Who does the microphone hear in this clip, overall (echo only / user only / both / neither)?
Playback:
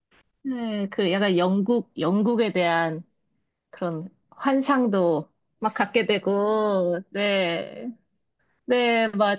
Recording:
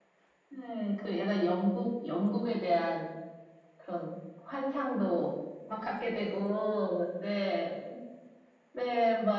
echo only